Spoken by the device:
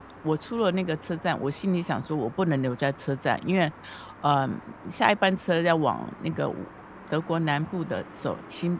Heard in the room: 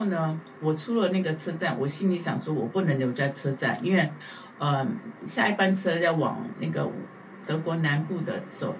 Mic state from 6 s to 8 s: echo only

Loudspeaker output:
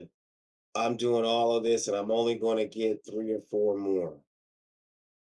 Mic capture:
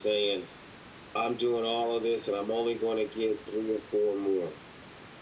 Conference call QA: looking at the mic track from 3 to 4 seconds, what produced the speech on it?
echo only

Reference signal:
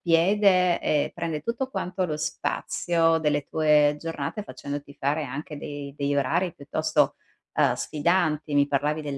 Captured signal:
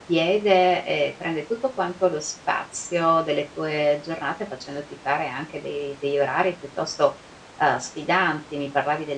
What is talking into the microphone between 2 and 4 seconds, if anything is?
echo only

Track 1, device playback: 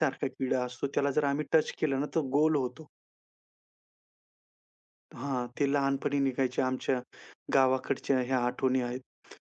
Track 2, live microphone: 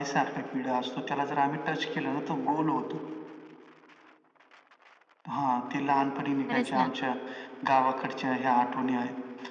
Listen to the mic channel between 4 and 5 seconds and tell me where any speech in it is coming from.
neither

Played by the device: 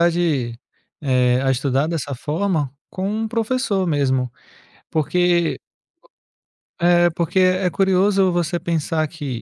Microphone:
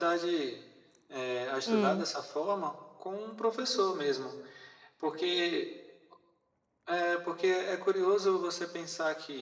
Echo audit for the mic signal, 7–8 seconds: echo only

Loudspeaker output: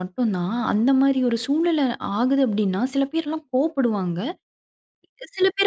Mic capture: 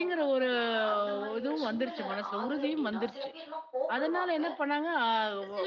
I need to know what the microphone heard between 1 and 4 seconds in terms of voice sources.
both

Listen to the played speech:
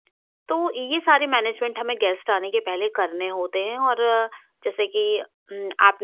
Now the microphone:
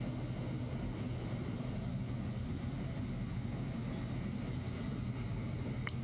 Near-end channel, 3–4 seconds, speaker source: neither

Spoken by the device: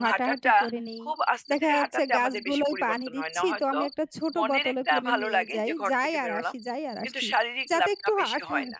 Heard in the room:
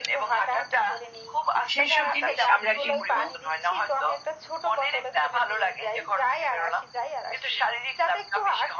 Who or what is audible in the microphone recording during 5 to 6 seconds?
echo only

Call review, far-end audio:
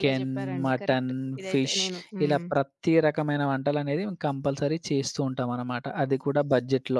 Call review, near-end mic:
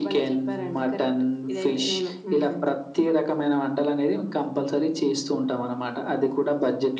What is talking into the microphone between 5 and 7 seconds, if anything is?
echo only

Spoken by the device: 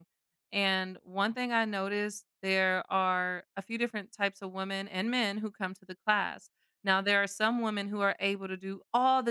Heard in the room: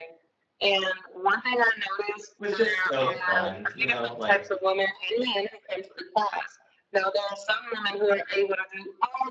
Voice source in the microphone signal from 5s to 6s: echo only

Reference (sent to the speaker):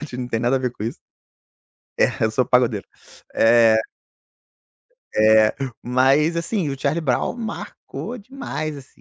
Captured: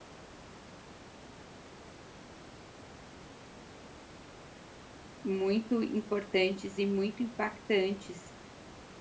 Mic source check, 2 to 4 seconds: neither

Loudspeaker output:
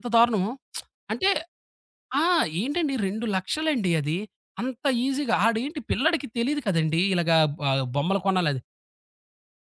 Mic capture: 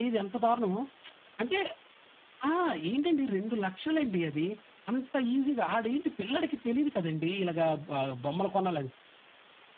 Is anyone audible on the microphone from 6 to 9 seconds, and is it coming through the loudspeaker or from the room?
echo only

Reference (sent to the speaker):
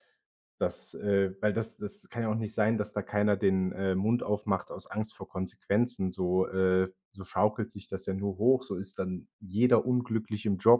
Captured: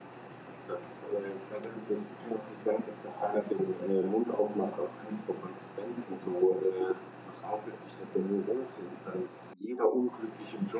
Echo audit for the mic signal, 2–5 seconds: echo only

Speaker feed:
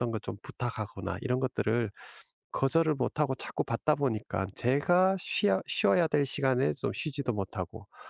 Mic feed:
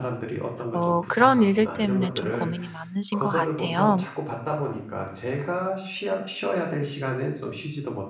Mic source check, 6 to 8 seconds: echo only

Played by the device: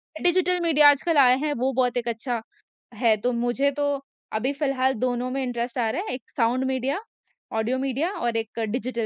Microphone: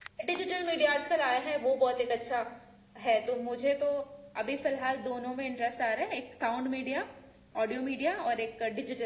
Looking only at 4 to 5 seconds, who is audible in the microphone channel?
echo only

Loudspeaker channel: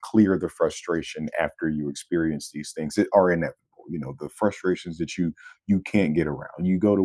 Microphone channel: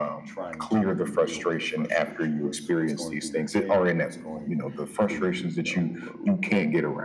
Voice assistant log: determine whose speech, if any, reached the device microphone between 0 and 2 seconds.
both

